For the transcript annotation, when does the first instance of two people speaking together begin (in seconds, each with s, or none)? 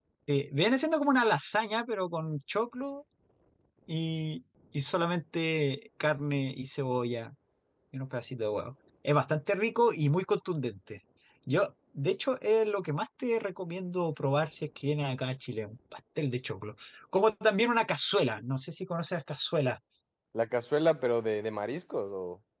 none